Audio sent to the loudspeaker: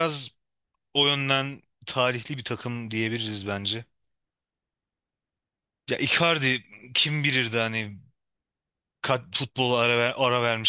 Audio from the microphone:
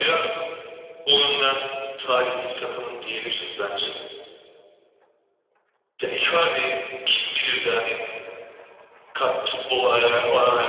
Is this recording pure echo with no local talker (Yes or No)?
Yes